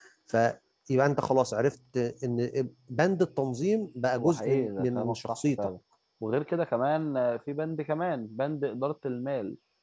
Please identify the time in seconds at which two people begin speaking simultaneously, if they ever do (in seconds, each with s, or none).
4.1 s